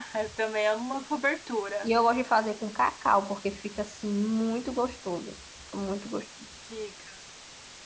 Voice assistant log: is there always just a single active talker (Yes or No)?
Yes